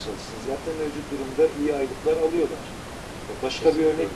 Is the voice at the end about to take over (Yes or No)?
No